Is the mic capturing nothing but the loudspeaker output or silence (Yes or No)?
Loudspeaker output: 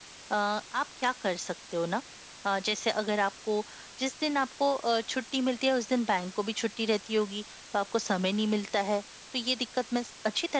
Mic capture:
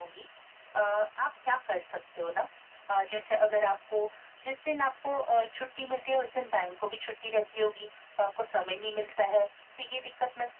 Yes